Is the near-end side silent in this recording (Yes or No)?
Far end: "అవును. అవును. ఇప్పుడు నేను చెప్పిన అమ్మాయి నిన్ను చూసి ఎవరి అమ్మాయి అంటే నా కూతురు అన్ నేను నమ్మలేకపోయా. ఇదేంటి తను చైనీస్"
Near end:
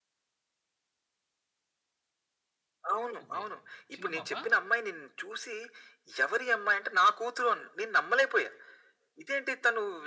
No